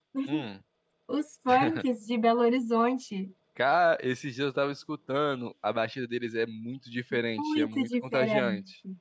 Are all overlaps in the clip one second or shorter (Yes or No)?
No